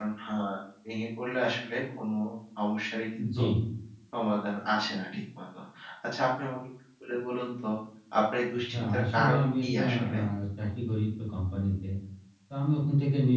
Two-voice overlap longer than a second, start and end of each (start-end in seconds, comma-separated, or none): 8.5-10.2